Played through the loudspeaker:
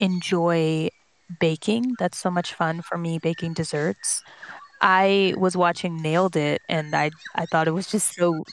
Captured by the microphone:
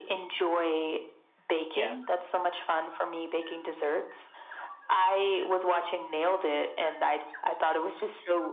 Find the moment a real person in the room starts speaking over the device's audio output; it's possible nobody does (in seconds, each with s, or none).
1.7 s